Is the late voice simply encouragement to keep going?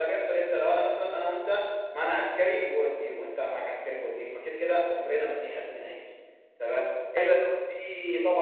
Yes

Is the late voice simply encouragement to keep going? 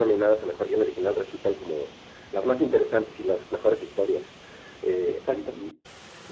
Yes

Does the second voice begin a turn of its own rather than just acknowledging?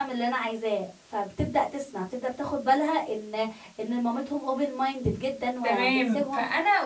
Yes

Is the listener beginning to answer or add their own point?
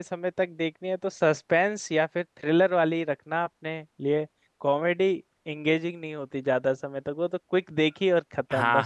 Yes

